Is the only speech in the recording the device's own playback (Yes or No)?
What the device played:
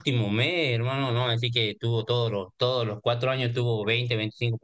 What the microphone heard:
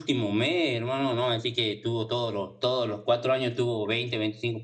Yes